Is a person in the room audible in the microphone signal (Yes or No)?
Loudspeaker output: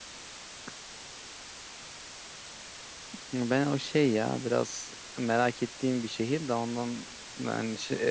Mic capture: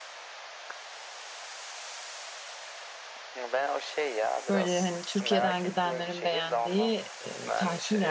Yes